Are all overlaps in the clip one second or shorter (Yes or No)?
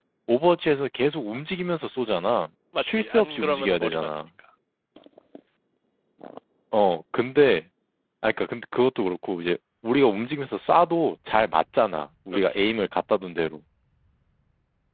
No